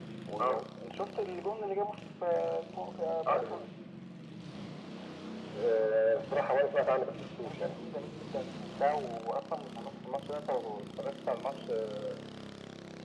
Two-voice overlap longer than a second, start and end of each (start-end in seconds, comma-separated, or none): none